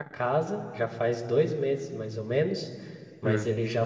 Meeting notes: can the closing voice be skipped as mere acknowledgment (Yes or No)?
Yes